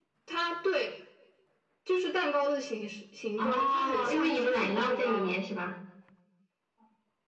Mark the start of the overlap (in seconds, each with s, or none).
3.4 s